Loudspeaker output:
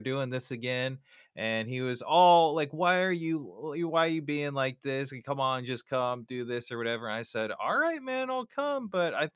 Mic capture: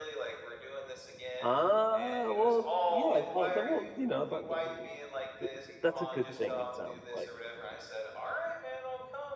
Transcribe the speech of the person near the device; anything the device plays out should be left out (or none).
Uh, well, yeah, that that well, you know, that that Good. that's a good thing, it sounds like.